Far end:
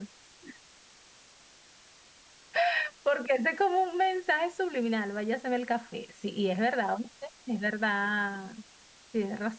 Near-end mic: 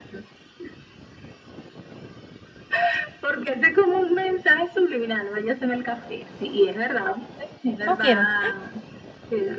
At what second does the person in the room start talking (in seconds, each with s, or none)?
7.9 s